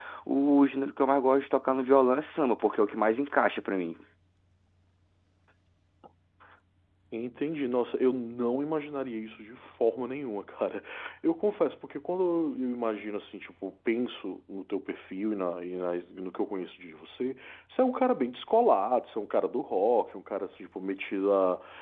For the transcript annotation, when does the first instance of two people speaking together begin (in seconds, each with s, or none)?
none